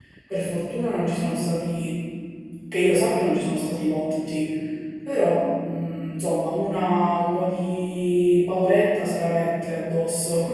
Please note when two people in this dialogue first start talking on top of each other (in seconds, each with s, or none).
none